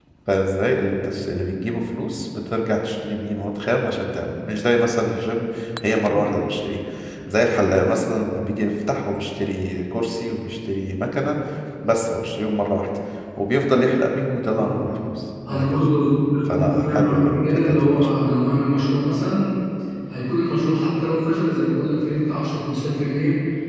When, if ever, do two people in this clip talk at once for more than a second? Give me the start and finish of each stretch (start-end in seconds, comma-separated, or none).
16.5-18.2